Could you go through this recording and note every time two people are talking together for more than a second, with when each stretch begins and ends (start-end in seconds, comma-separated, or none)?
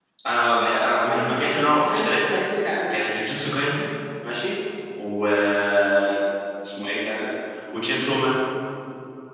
1.0-2.4